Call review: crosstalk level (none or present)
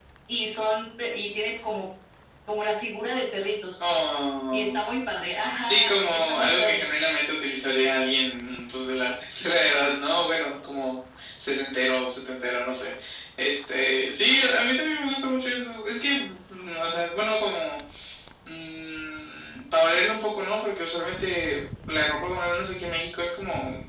present